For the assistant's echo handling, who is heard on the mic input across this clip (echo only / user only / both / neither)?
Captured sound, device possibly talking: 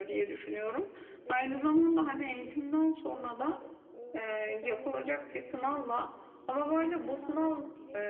both